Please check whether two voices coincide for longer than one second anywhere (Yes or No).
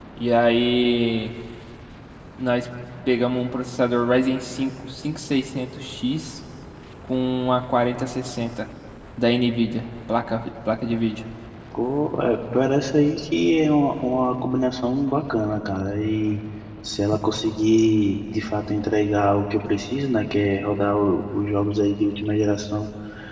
No